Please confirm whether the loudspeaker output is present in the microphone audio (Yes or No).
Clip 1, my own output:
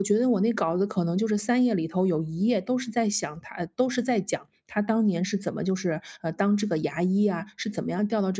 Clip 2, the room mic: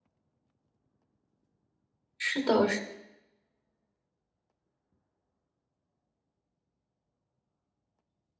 No